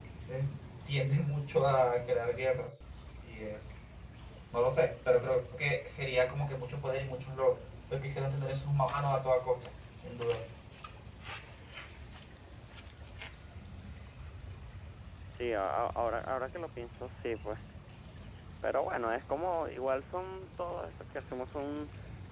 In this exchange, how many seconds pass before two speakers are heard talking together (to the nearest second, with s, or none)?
none